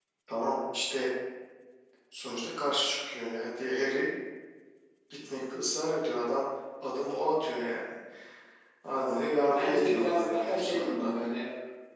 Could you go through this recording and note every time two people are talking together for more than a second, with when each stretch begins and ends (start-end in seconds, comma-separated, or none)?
9.6-11.1